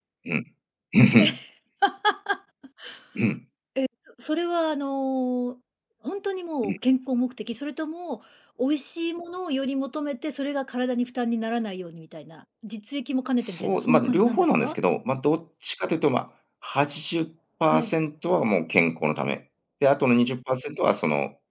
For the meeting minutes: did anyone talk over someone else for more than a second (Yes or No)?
Yes